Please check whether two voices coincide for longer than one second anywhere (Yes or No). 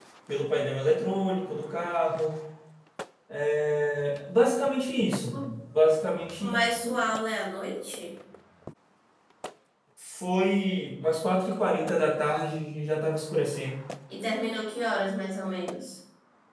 No